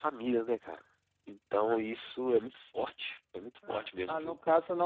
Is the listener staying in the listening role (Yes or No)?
No